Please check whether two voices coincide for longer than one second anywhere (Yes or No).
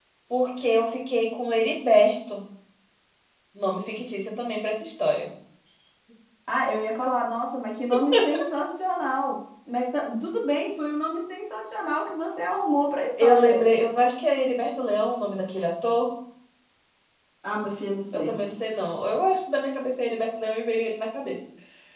No